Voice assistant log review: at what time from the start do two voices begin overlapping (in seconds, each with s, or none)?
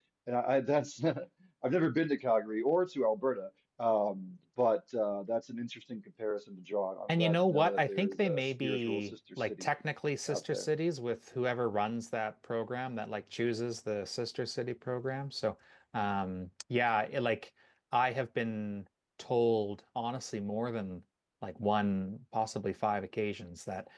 7.1 s